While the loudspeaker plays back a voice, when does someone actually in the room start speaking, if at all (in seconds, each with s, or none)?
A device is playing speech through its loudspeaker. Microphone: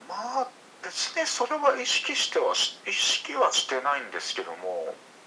none